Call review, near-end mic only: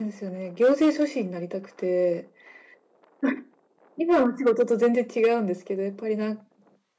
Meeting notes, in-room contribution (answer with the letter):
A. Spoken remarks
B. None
A